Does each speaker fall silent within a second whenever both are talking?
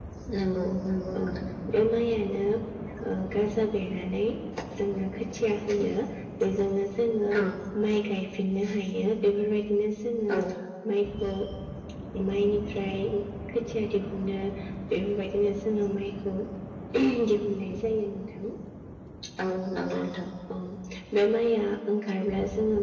Yes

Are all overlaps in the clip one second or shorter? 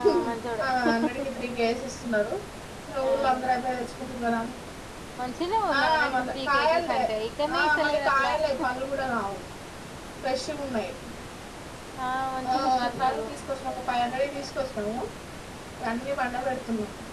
No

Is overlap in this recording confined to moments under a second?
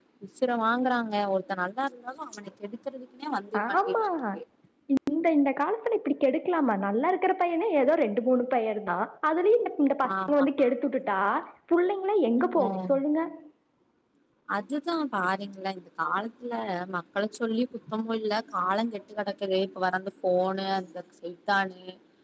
Yes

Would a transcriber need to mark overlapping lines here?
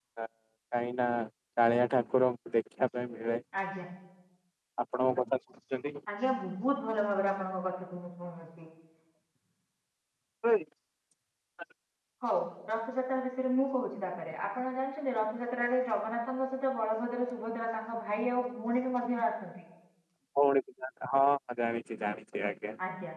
No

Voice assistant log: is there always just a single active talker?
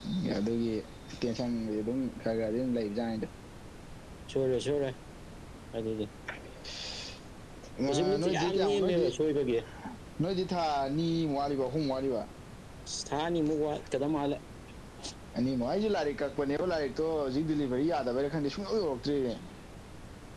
No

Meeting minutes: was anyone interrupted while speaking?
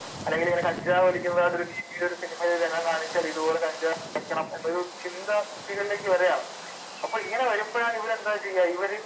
No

